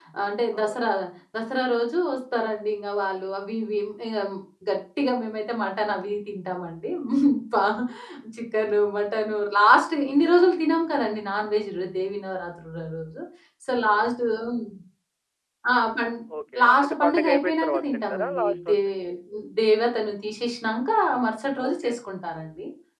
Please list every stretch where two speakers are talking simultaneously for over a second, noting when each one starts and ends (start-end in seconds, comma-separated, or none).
16.6-18.8